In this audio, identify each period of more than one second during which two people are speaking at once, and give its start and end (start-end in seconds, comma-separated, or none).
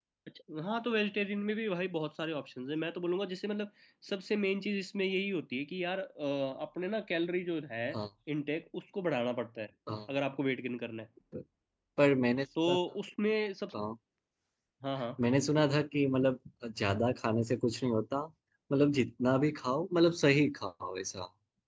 none